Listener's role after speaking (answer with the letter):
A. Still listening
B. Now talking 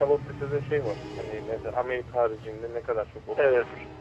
B